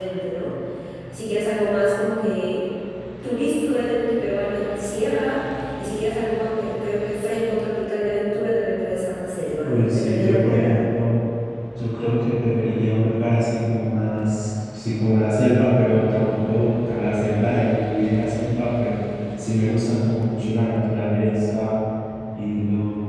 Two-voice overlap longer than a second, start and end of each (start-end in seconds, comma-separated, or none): 9.6-10.8